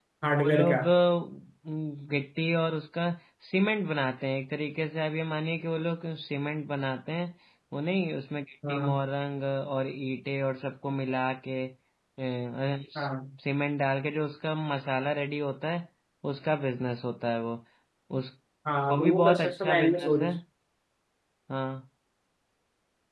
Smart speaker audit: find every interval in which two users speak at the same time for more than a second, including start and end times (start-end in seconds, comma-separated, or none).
18.9-20.3